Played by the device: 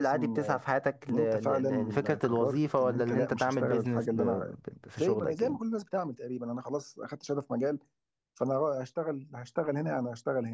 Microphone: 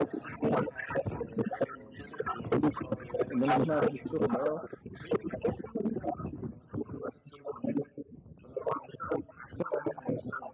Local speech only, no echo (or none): ان انا سمعت ان في شغل اه